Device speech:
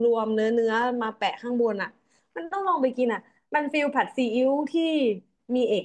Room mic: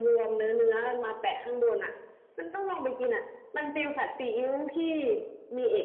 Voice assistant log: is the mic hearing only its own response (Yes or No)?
Yes